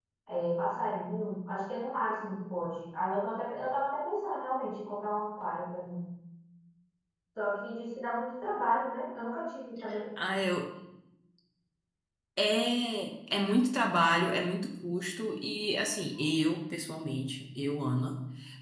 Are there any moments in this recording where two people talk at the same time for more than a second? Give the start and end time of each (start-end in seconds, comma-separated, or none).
none